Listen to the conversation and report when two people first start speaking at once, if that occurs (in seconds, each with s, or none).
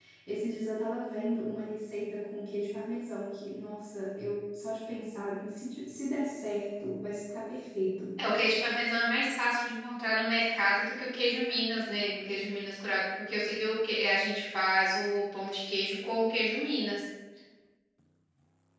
none